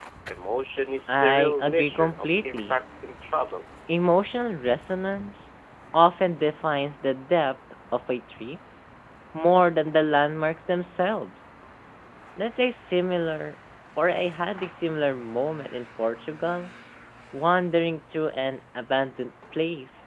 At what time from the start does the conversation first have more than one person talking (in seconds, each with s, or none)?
1.1 s